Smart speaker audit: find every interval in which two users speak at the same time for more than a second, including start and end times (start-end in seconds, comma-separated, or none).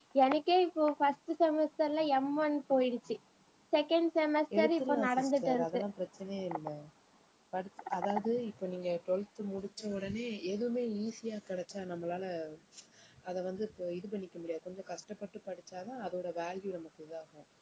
4.6-5.8